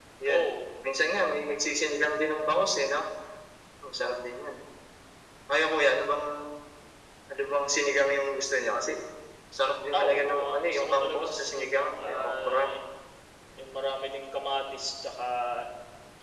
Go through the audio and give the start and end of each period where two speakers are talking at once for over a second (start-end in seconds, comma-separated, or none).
9.9-12.6